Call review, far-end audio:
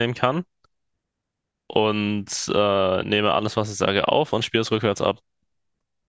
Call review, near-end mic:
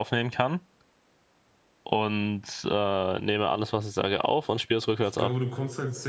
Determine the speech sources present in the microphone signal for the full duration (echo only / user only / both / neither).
both